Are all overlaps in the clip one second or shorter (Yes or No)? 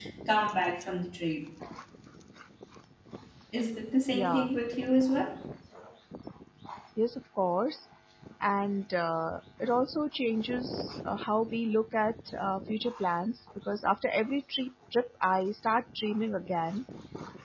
Yes